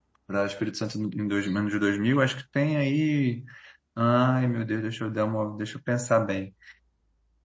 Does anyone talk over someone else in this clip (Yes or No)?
No